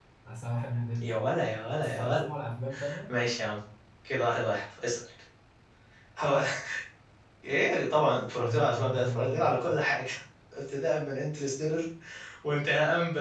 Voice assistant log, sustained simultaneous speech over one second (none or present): present